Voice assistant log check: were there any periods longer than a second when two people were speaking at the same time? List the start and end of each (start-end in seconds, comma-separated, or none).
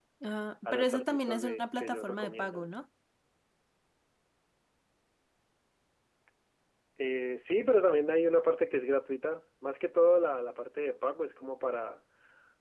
0.7-2.7